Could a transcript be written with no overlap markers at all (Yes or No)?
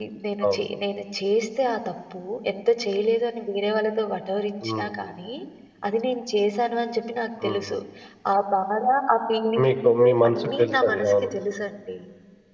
No